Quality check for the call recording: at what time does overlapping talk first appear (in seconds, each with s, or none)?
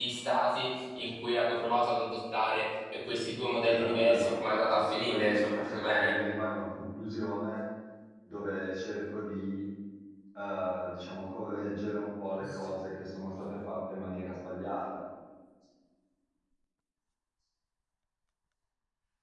3.6 s